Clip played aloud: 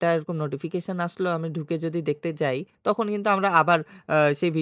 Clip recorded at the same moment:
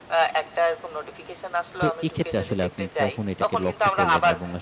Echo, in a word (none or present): present